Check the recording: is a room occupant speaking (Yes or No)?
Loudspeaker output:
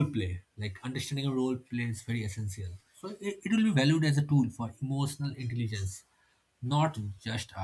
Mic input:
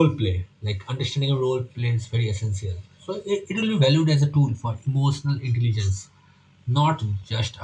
No